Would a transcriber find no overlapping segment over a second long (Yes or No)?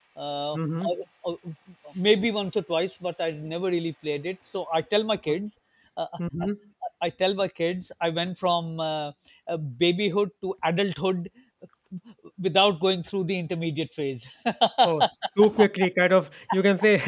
Yes